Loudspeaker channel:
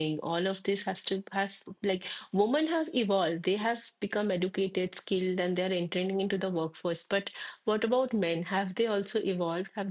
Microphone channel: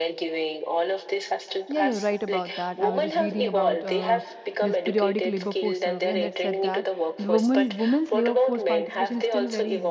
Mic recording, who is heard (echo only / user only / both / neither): both